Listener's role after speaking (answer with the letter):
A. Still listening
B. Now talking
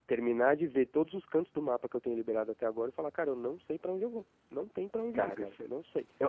B